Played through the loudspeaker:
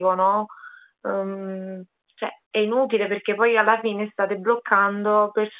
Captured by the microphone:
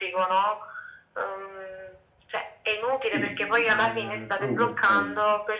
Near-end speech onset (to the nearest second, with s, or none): 3 s